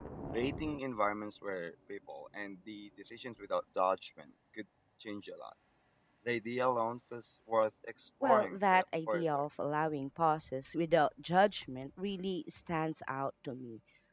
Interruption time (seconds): 8.2 s

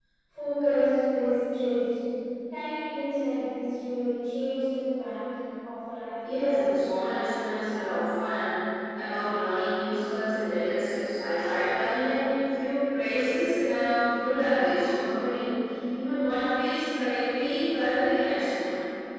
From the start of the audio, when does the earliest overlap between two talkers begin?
6.2 s

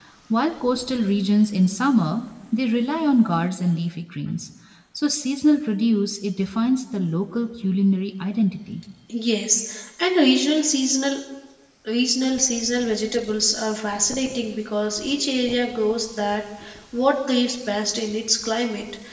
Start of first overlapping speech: none

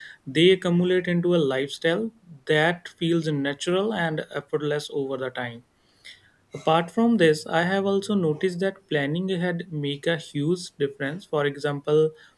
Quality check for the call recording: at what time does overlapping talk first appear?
none

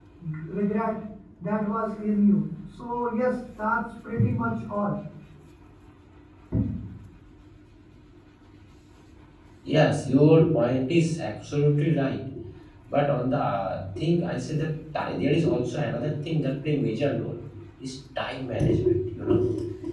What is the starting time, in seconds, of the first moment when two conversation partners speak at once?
none

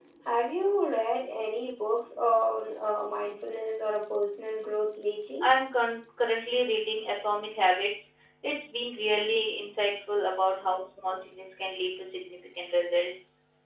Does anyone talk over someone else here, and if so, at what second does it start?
none

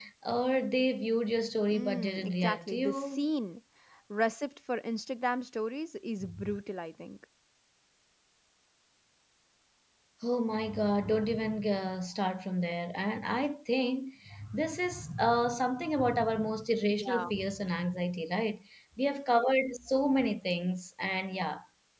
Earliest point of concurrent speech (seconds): 1.7 s

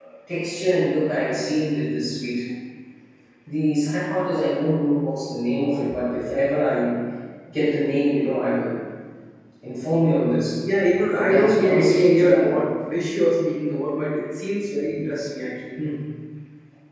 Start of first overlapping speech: 11.1 s

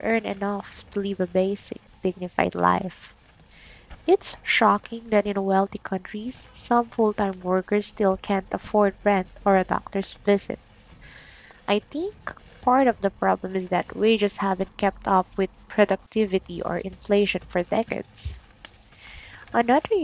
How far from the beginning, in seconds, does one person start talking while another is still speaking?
none

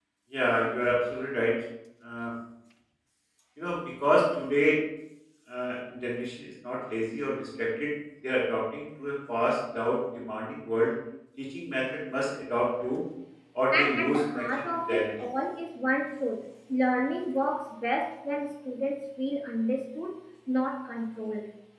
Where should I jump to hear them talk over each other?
13.7 s

